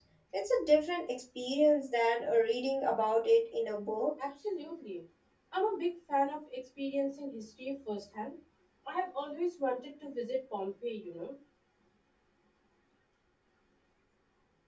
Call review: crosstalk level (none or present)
none